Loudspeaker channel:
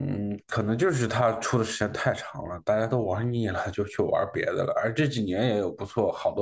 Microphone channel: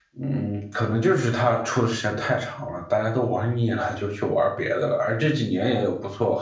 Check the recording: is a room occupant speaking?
No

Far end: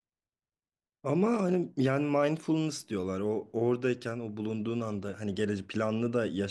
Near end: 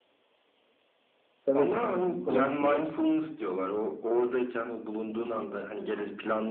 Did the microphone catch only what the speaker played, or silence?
No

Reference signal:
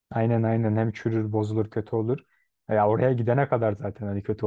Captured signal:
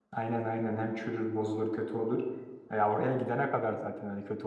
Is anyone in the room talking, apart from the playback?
No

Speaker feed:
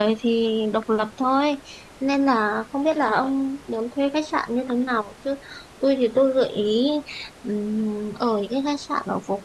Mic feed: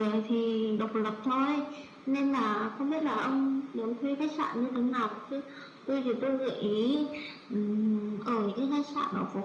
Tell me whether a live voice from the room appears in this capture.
No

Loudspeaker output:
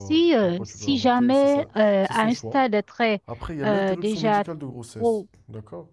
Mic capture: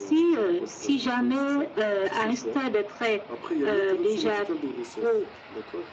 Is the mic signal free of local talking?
Yes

